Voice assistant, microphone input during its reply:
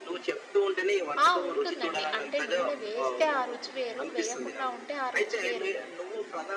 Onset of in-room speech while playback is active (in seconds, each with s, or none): 1.2 s